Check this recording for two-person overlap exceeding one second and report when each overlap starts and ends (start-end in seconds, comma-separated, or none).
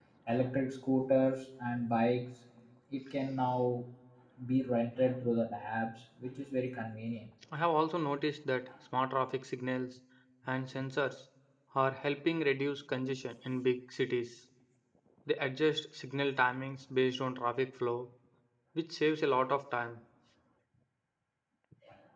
none